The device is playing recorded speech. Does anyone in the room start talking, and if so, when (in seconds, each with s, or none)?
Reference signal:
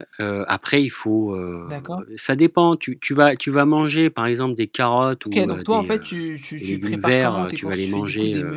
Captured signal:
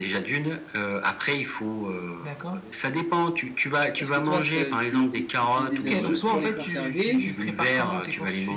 4.0 s